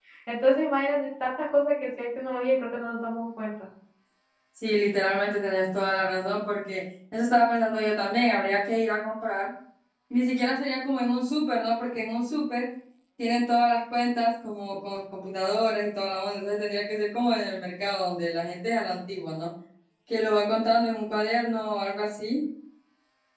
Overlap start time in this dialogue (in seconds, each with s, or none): none